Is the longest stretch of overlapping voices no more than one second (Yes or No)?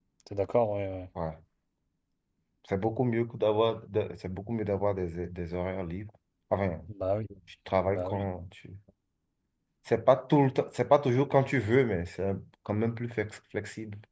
Yes